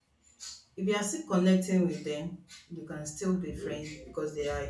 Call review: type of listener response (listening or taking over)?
listening